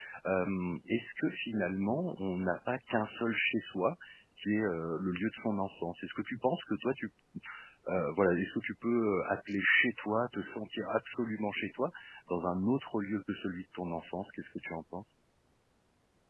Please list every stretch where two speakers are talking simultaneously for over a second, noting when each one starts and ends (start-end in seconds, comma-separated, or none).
none